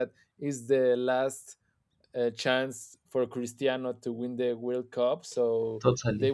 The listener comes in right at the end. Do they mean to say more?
No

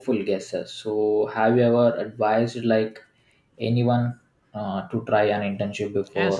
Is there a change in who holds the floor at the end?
Yes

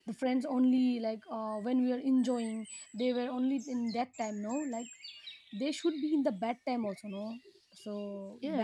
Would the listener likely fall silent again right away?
No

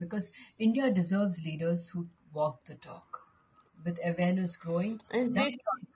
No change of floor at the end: Yes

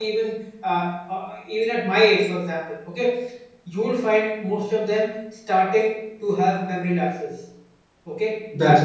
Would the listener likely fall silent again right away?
Yes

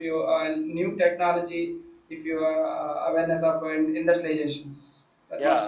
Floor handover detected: Yes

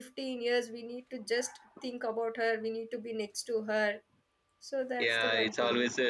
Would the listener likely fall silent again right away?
No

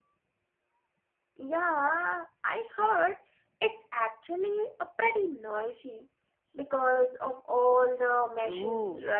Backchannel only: No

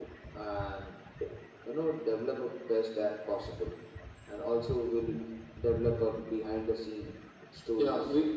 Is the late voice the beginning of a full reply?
Yes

